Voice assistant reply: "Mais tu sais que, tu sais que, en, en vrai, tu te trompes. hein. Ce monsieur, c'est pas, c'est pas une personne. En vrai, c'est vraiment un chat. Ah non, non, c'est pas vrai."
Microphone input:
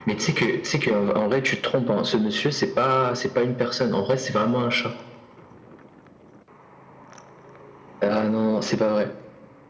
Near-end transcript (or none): none